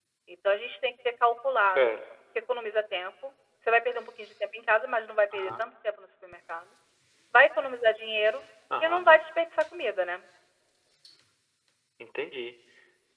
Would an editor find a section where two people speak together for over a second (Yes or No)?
No